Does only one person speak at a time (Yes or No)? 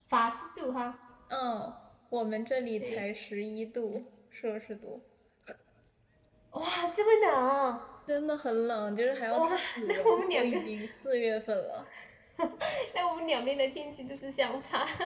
No